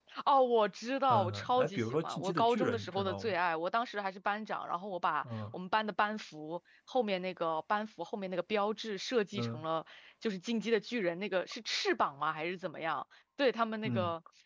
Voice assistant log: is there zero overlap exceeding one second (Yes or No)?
No